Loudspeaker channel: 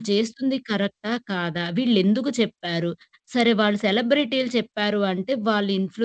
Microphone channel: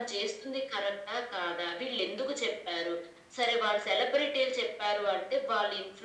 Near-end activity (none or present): none